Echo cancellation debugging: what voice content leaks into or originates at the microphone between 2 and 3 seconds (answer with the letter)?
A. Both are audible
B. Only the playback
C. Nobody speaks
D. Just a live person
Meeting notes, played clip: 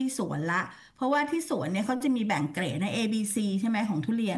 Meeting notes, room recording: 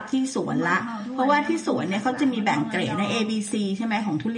A